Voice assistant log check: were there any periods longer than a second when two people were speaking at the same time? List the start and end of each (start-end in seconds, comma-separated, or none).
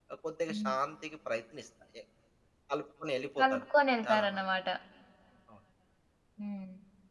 none